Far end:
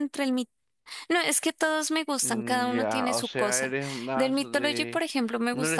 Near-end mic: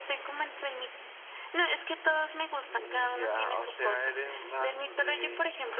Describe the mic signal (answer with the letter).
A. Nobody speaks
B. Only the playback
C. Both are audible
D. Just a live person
B